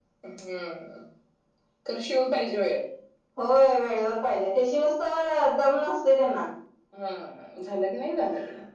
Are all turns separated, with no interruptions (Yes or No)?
Yes